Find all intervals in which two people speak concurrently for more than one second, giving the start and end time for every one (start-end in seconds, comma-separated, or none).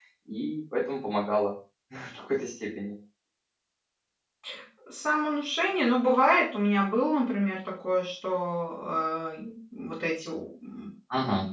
none